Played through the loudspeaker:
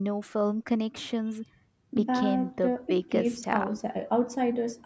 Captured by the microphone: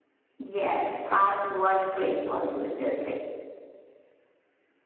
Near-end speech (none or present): present